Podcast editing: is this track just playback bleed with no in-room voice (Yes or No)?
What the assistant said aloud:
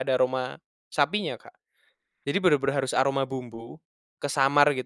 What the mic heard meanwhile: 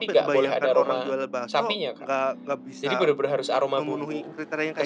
No